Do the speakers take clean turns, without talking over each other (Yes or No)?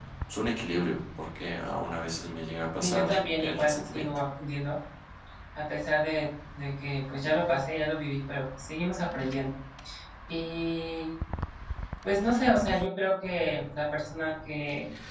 No